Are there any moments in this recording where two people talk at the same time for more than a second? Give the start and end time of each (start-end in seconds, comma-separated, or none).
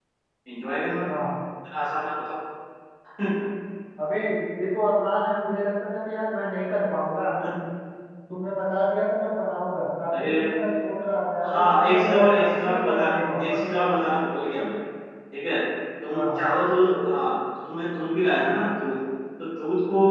11.5-13.6